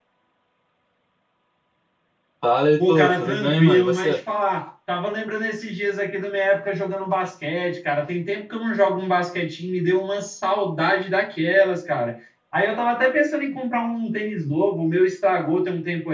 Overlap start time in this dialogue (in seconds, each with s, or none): 2.9 s